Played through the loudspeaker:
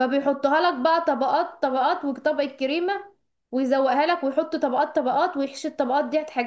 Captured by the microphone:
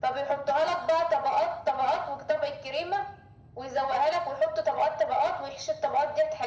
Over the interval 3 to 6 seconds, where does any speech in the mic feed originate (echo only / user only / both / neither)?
echo only